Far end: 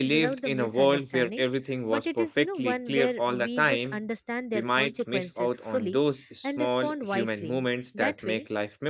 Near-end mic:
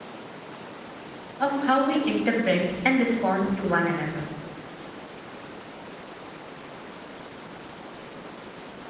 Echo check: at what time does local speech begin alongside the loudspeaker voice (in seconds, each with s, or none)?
1.4 s